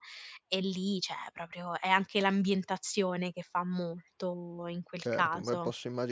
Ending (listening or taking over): taking over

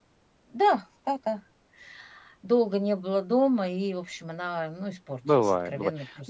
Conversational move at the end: taking over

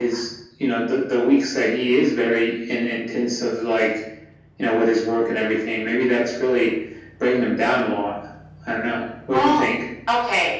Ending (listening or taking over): taking over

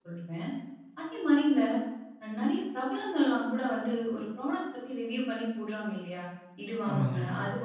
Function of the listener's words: listening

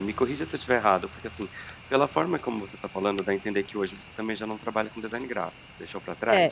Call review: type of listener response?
taking over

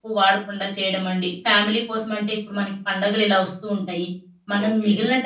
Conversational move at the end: listening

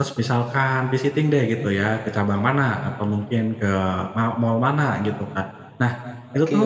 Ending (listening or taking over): listening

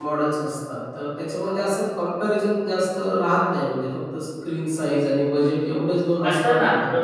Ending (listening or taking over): taking over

